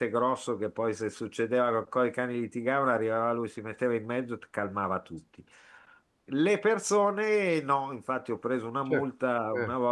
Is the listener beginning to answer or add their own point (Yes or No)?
No